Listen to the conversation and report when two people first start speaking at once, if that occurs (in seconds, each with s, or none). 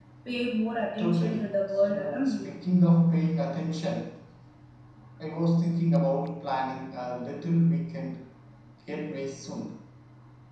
0.8 s